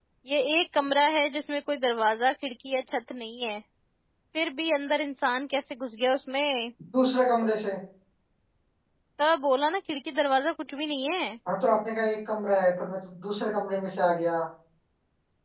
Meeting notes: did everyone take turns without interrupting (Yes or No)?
Yes